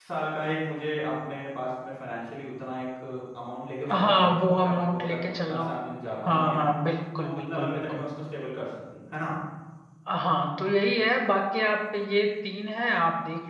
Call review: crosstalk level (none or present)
present